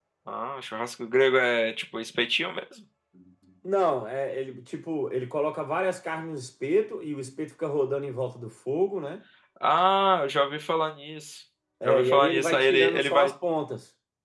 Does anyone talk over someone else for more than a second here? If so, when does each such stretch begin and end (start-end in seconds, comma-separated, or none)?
11.8-13.3